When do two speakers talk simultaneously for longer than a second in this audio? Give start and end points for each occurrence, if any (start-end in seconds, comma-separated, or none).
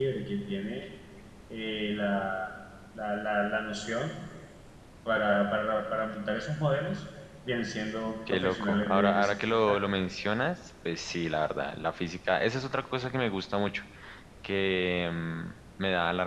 8.3-9.8